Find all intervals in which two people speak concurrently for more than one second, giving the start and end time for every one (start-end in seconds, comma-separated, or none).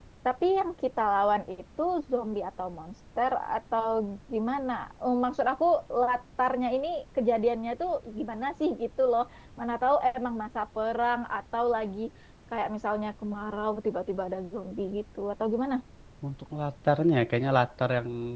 none